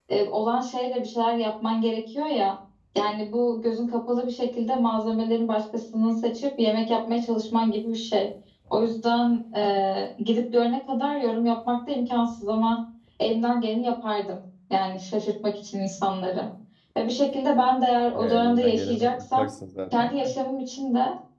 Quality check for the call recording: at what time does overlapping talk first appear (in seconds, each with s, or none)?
18.1 s